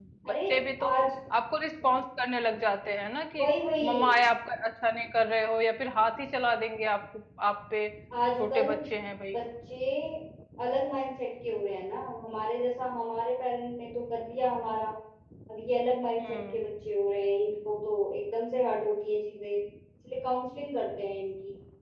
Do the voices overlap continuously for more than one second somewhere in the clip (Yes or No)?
No